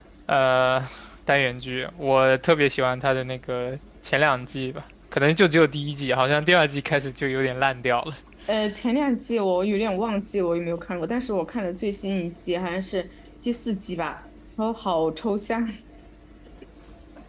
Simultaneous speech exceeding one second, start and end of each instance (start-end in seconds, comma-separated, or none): none